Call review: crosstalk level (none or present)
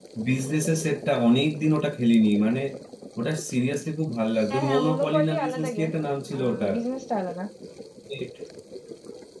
present